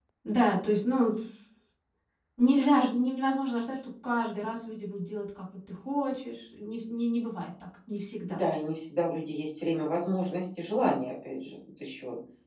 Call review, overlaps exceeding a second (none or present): none